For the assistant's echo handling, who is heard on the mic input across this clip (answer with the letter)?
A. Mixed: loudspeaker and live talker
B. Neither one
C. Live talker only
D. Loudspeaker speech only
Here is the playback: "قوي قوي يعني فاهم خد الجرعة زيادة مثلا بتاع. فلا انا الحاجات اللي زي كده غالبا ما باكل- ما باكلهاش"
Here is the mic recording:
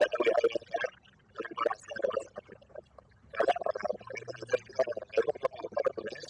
D